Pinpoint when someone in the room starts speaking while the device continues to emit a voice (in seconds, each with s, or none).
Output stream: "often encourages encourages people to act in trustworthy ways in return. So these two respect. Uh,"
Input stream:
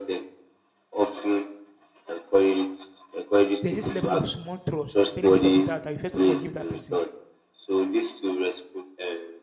3.6 s